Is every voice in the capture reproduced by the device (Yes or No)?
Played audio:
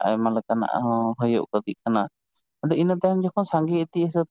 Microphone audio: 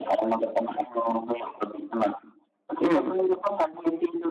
No